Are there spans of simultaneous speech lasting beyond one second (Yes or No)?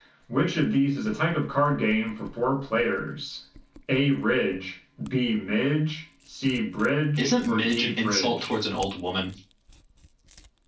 Yes